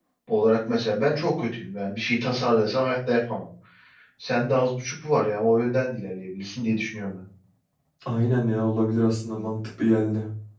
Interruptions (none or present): none